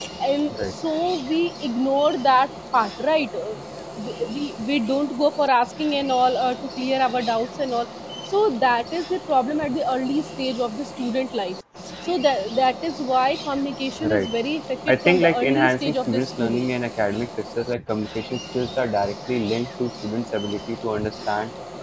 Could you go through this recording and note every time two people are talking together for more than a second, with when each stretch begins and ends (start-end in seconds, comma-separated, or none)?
14.9-16.7